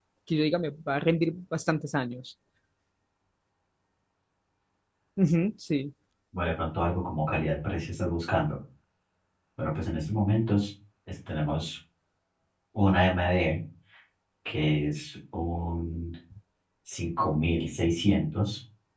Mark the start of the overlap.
none

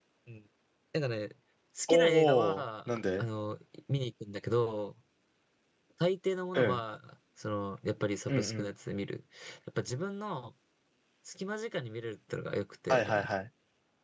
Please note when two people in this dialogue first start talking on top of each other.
1.9 s

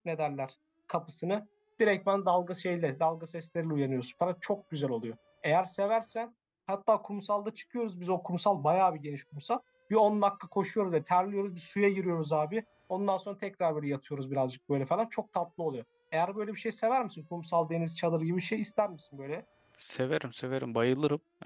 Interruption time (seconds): none

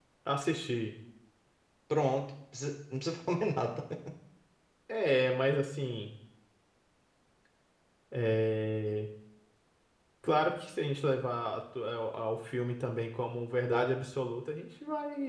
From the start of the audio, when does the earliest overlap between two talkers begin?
none

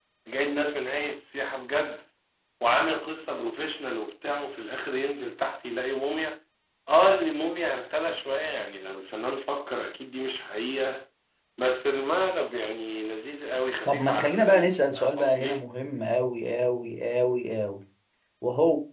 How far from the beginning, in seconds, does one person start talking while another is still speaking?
13.9 s

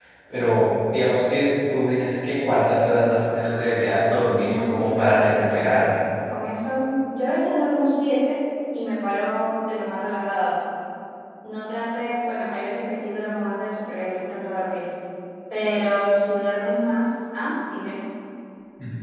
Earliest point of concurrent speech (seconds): 4.4 s

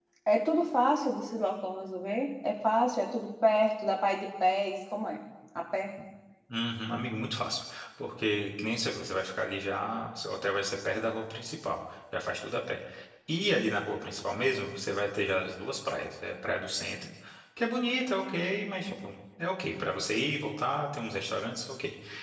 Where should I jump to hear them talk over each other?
none

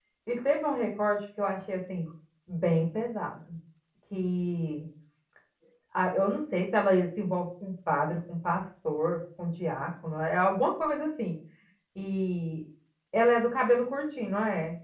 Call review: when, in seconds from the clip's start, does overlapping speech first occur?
none

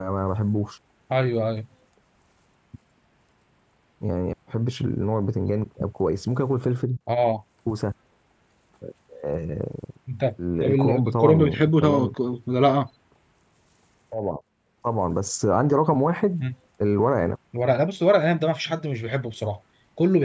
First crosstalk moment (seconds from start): 10.6 s

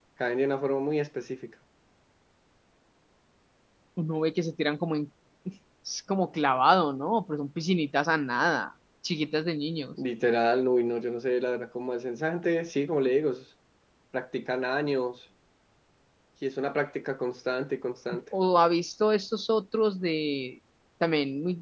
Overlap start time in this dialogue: none

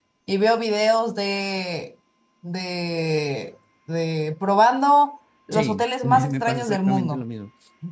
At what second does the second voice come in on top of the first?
5.5 s

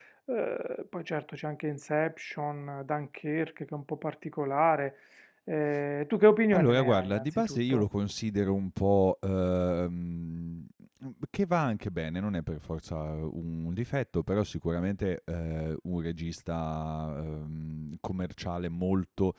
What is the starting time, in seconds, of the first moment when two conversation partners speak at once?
6.5 s

